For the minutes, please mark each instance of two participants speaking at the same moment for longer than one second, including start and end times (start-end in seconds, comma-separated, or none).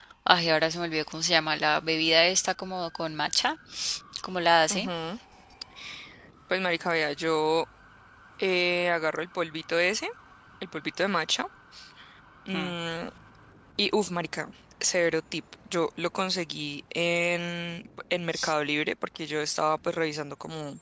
none